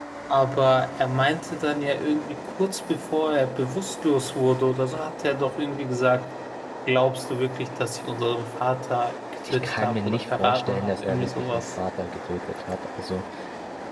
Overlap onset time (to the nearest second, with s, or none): 9 s